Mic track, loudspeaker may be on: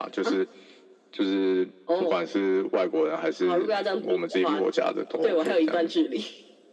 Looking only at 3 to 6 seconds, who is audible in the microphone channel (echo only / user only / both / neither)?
echo only